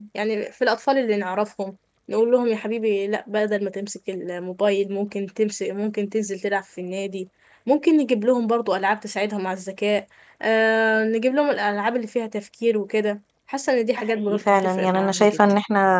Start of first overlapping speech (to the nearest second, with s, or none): 14 s